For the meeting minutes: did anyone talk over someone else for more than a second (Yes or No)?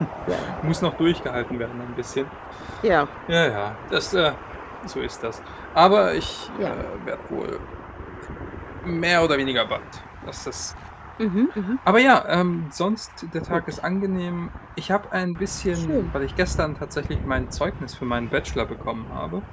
No